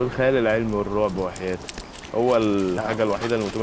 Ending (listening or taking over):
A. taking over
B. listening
B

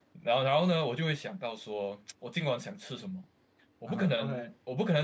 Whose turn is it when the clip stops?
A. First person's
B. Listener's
A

